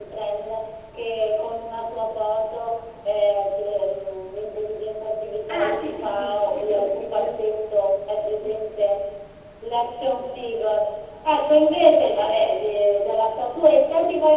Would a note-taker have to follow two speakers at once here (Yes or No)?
Yes